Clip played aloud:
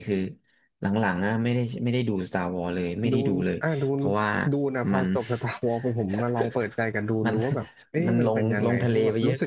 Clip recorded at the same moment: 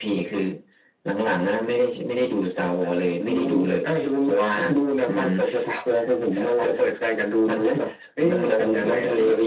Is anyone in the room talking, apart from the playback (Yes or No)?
No